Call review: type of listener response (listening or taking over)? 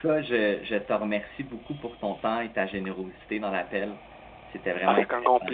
taking over